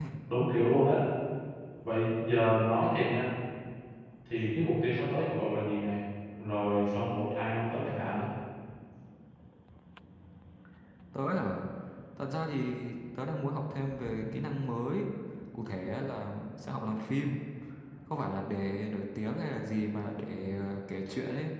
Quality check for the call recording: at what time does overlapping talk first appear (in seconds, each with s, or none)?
none